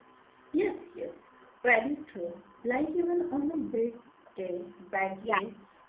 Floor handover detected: No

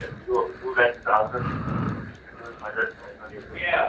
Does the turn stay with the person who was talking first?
No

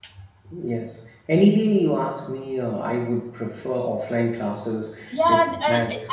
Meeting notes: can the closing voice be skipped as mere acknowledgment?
No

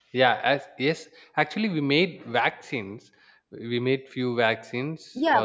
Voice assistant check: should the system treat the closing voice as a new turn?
Yes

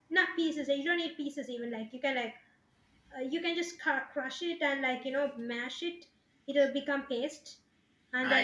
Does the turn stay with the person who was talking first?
Yes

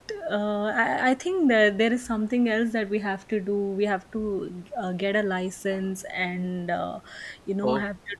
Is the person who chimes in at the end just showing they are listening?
Yes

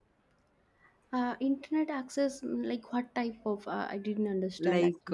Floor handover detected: Yes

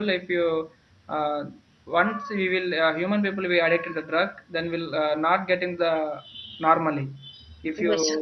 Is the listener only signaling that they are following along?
Yes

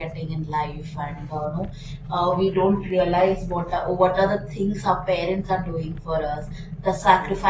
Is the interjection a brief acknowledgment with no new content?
Yes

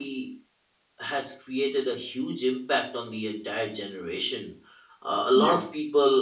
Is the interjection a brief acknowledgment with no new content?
Yes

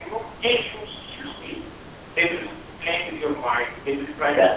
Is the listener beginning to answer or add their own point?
No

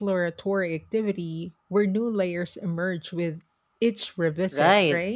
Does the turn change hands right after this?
Yes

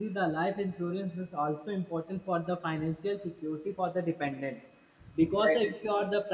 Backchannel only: Yes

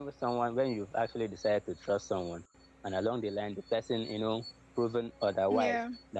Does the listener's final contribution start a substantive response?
No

